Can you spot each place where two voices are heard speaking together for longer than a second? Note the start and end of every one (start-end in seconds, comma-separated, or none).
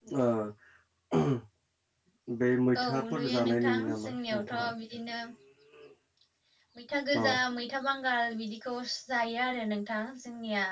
2.8-4.7